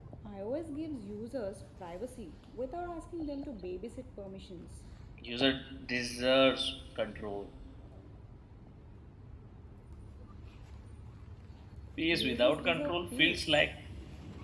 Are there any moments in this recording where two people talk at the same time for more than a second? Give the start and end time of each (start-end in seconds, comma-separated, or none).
12.1-13.6